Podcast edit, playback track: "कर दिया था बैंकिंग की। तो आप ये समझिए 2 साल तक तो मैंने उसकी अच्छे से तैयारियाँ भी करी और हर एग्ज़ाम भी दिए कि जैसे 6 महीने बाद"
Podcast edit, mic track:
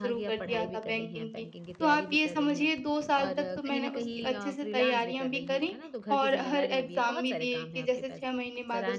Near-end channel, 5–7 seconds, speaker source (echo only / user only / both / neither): both